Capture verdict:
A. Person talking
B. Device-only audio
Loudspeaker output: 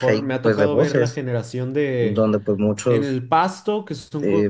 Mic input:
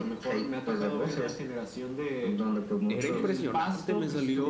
A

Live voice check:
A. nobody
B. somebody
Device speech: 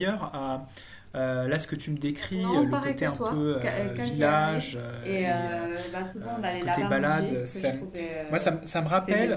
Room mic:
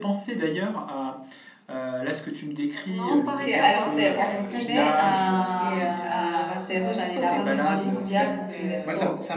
B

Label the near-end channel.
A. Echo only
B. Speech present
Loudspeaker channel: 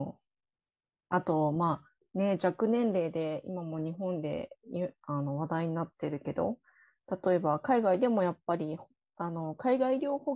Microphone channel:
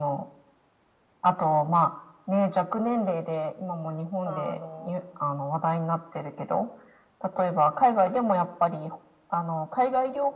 B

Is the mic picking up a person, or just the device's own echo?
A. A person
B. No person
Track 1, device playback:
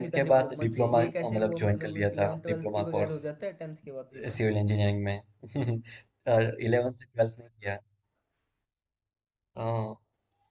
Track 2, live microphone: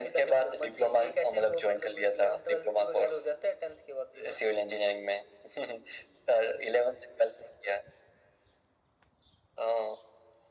B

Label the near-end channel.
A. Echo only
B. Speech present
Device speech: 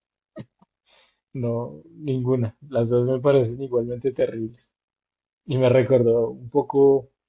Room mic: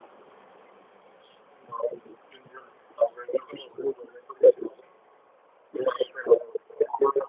A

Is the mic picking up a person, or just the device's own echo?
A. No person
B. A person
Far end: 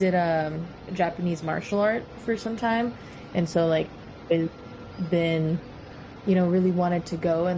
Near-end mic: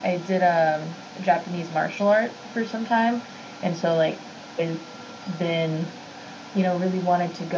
A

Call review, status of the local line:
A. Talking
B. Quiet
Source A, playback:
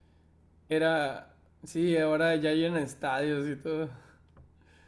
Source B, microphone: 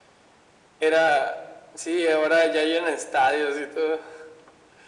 B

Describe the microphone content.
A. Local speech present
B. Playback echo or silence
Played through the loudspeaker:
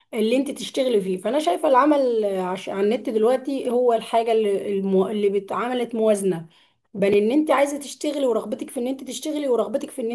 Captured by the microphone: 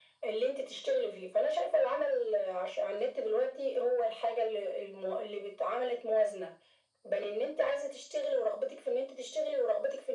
B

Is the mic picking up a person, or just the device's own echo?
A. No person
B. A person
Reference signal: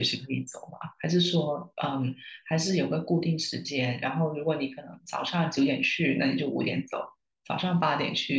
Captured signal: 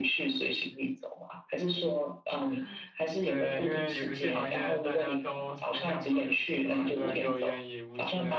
B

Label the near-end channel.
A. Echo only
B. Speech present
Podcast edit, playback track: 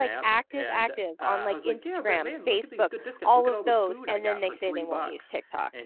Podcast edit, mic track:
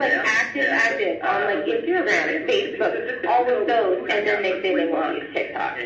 A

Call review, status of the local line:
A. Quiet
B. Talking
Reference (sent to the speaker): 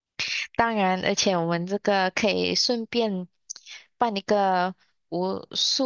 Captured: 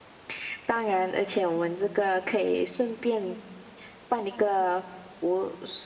A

